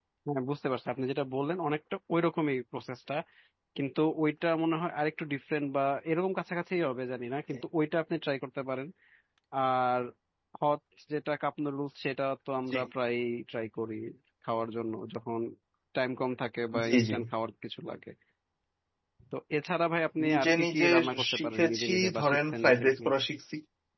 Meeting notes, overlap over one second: present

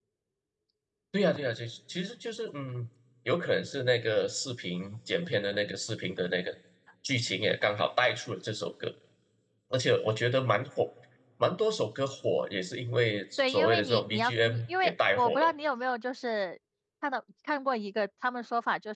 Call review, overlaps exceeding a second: present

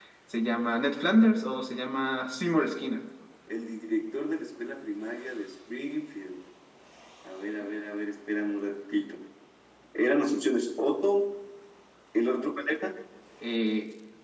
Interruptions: none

